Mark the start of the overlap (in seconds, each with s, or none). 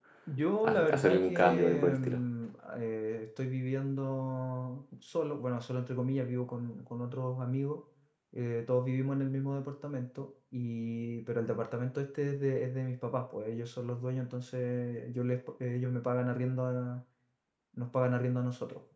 0.6 s